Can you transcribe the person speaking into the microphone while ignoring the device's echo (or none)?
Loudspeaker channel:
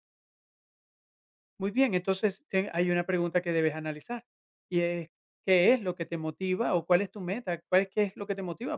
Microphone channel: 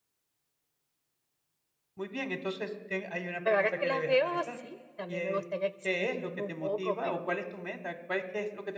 Pero ahora que las veo, sí, también me gustaría quizás definirme un poco, pero